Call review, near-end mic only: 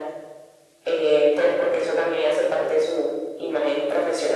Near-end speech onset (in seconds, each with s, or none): none